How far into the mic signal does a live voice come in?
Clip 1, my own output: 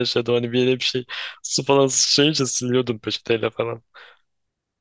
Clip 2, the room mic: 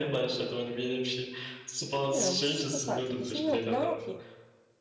1.9 s

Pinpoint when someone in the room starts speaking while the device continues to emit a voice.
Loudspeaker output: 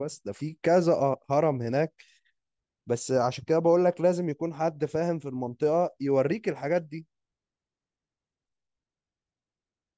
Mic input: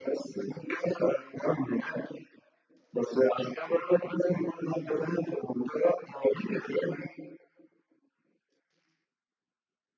none

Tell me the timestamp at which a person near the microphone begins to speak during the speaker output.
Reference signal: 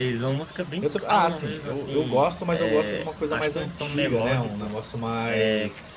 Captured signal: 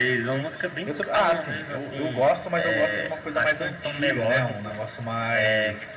none

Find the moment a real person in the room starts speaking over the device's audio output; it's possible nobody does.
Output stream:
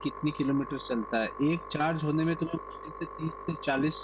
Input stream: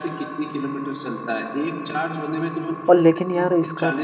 2.9 s

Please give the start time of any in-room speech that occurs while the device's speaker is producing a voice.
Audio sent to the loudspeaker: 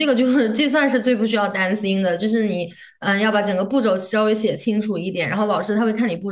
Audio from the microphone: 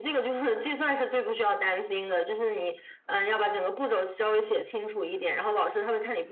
none

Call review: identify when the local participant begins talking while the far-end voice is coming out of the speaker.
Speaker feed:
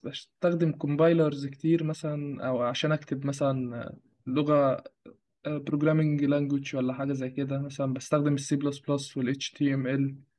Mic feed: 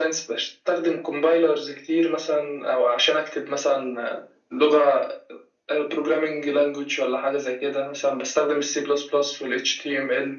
none

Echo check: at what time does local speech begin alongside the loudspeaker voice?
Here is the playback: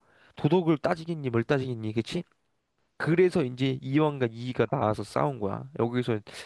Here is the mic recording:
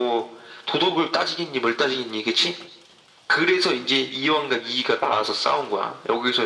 none

